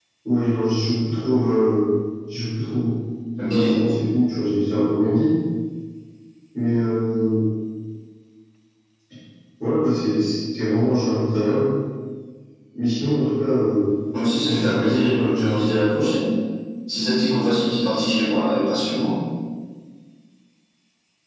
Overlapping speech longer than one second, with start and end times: 14.4-16.1

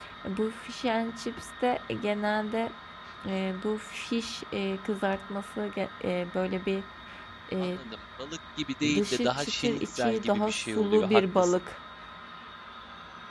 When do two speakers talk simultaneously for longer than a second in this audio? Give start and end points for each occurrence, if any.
8.9-11.6

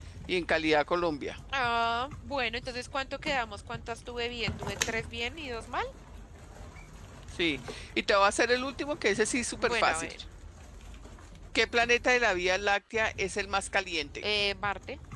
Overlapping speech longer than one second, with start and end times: none

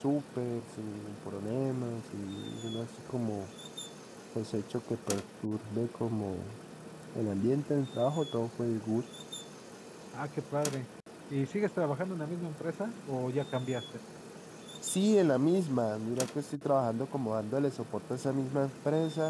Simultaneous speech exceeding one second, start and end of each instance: none

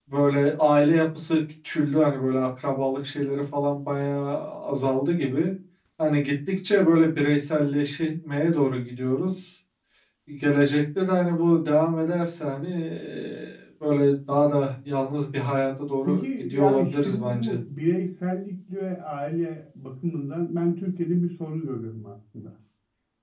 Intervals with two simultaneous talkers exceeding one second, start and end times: 16.1-17.6

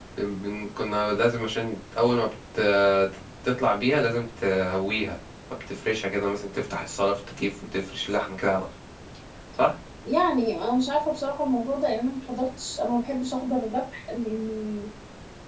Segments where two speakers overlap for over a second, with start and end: none

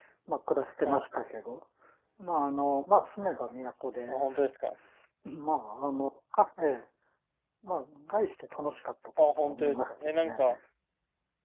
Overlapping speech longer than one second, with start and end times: 9.2-10.4

